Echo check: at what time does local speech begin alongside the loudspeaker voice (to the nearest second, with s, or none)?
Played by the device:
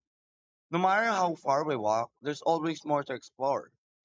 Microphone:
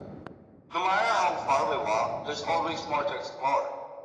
none